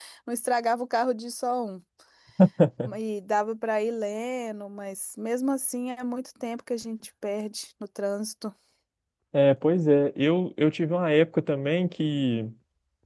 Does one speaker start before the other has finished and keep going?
No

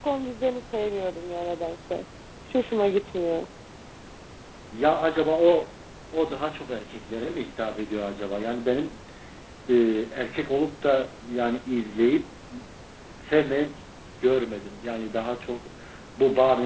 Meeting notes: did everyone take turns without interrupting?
Yes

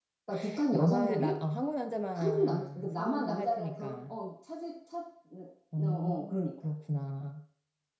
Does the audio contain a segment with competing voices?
Yes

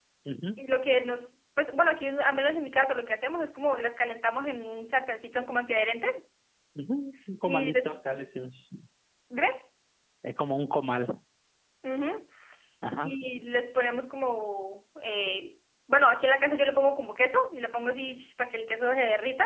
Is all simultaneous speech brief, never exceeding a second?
Yes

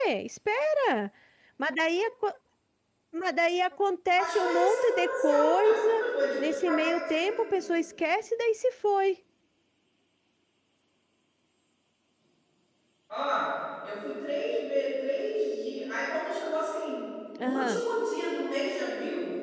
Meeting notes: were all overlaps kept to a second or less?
No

